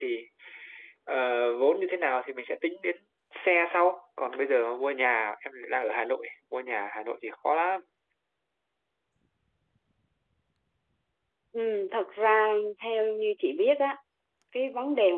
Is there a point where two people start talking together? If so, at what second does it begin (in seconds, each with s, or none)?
none